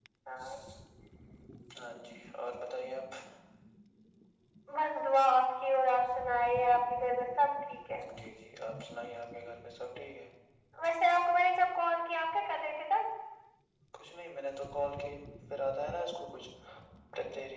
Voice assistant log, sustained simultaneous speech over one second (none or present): none